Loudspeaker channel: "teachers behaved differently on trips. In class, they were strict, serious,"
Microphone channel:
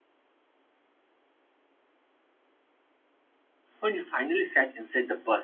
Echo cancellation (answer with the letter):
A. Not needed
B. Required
A